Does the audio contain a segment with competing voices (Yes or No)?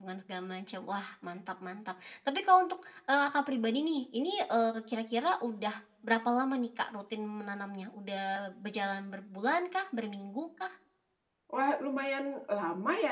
No